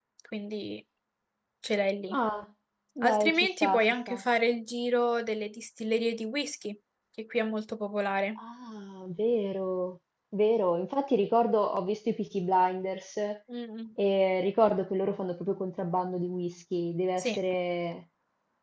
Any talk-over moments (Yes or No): Yes